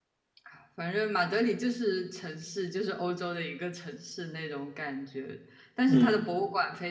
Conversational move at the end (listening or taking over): listening